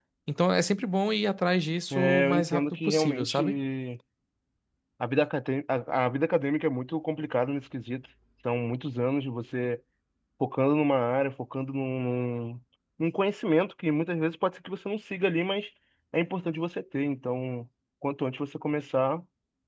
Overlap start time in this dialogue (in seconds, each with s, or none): 1.9 s